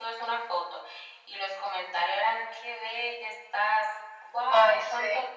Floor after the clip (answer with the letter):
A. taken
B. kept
B